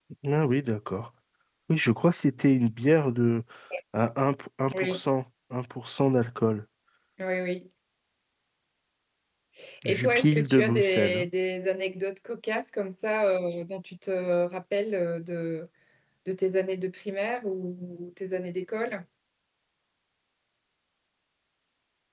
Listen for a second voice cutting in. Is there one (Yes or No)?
Yes